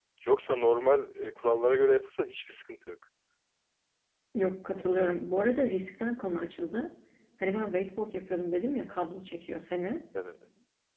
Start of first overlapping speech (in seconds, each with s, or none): none